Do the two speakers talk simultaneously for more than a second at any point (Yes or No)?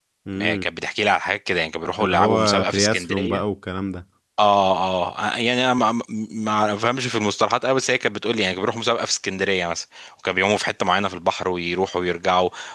Yes